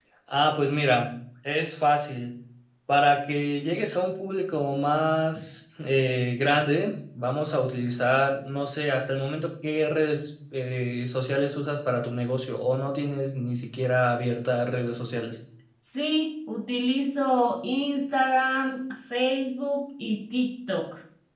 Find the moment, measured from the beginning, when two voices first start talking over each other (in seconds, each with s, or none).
none